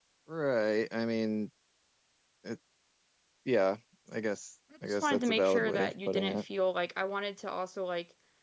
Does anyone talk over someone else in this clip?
Yes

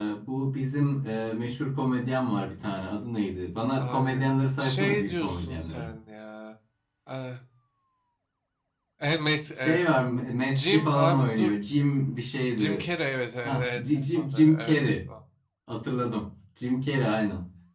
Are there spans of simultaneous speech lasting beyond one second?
Yes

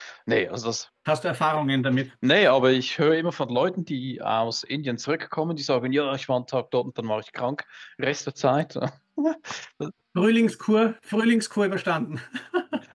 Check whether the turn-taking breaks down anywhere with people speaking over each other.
No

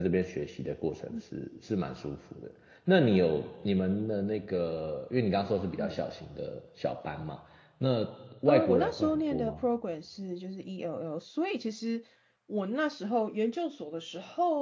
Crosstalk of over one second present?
Yes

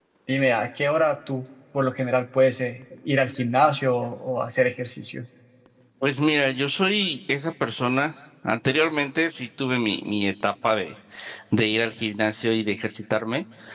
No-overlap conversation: Yes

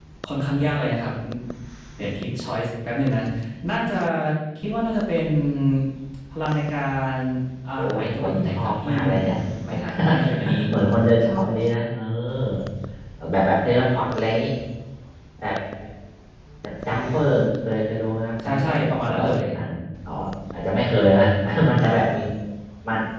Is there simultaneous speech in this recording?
Yes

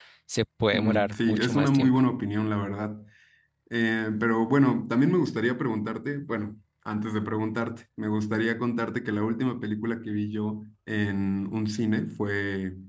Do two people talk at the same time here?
Yes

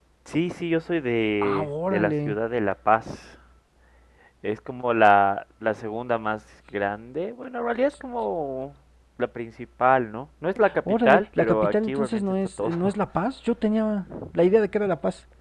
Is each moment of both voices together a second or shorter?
No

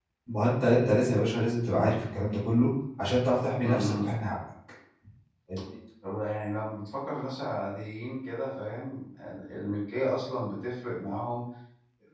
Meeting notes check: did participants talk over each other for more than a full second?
No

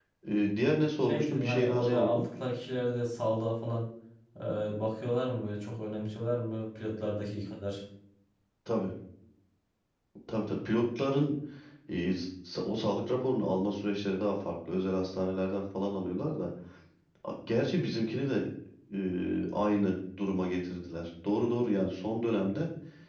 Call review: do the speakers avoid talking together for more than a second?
No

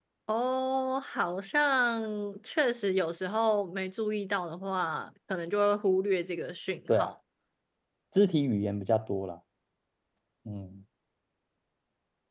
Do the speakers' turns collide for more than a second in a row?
No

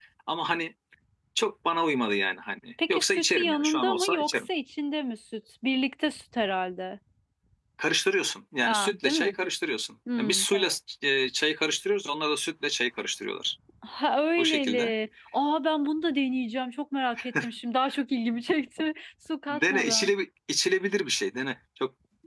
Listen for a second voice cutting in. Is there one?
Yes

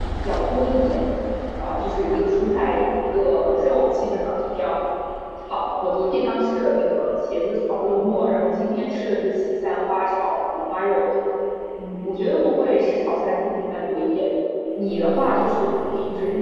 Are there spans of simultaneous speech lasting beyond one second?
No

